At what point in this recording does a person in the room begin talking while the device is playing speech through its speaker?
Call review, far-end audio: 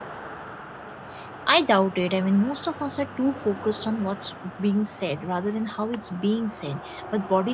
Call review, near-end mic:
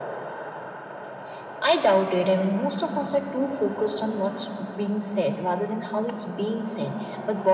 none

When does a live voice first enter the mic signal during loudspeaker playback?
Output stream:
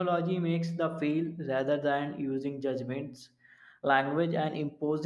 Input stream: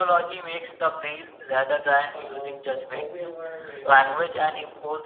2.1 s

